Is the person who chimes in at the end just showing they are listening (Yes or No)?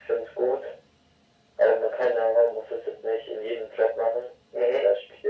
Yes